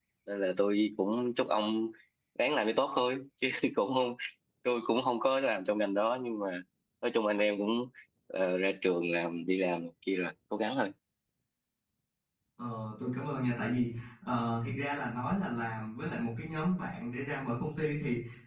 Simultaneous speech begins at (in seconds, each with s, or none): none